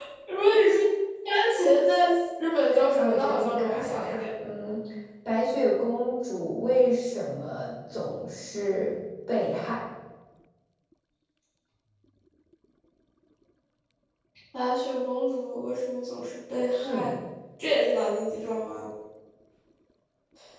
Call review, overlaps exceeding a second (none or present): present